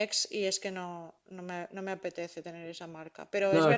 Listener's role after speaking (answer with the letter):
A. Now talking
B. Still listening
B